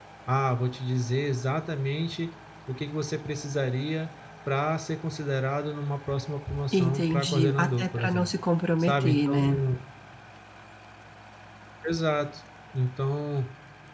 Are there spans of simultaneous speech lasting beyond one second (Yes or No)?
Yes